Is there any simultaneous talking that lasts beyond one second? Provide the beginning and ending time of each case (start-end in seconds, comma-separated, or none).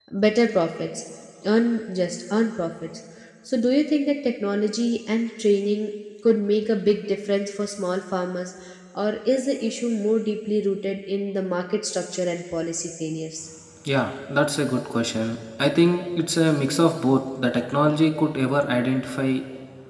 none